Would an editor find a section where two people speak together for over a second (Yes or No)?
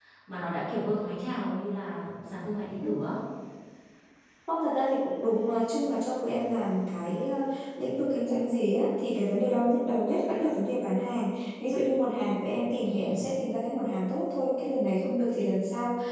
No